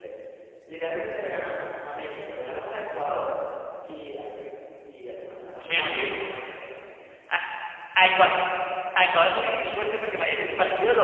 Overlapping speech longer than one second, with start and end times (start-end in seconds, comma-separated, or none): none